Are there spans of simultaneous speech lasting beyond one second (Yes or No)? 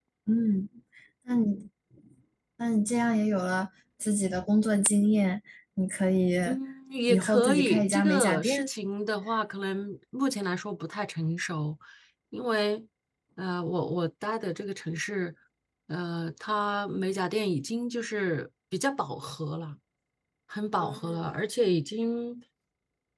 Yes